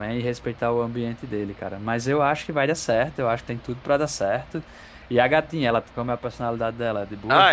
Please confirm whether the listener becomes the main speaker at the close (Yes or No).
Yes